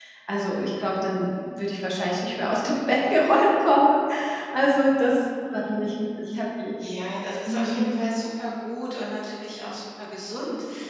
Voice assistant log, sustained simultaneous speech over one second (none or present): none